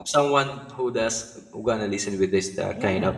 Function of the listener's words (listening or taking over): listening